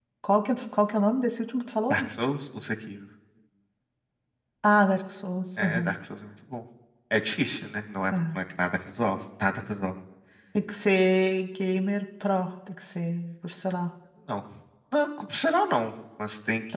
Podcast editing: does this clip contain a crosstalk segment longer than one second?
No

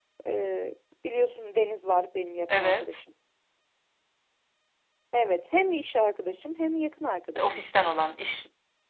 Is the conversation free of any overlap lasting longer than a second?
Yes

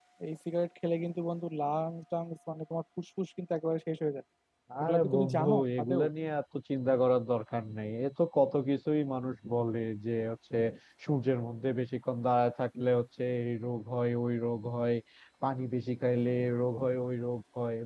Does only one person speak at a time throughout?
No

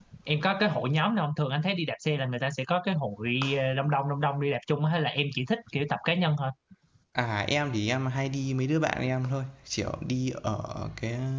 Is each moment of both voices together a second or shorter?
Yes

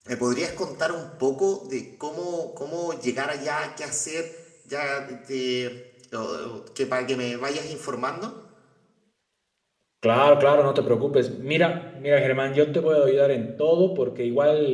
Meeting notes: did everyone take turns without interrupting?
Yes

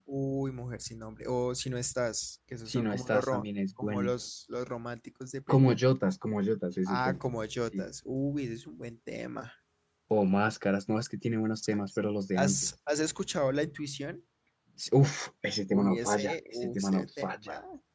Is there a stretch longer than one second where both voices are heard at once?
Yes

